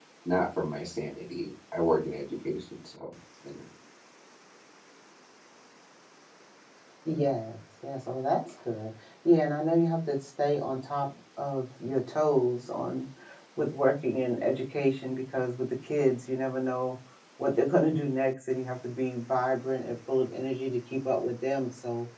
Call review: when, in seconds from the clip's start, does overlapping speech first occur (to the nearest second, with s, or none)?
none